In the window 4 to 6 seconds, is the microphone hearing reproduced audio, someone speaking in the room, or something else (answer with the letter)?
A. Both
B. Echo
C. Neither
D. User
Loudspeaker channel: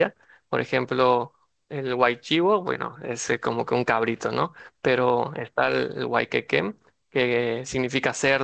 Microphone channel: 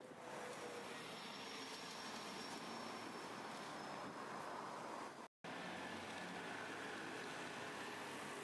C